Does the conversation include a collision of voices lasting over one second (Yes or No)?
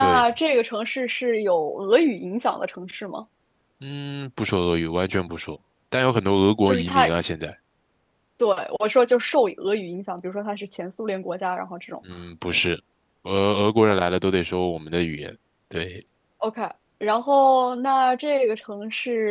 No